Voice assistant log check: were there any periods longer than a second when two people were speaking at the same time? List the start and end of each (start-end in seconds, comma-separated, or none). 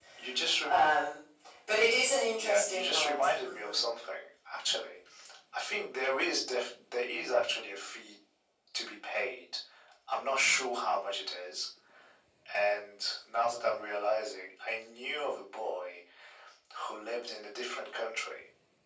2.3-3.8